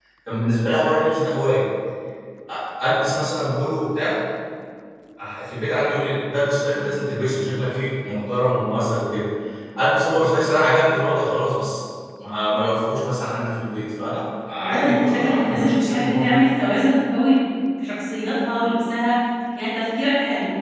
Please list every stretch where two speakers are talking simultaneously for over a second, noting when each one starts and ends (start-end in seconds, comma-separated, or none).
14.6-16.4